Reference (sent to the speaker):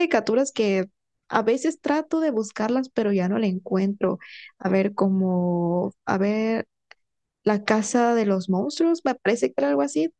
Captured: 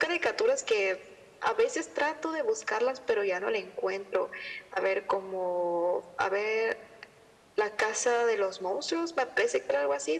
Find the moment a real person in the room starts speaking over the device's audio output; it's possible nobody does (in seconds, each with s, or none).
none